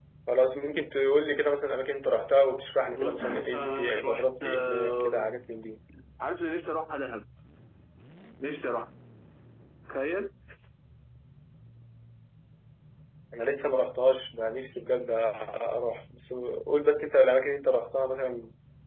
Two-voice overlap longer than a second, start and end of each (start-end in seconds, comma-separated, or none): 2.9-5.3